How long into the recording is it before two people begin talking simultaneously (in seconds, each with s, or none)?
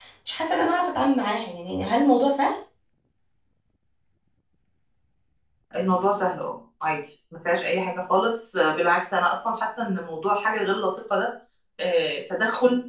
none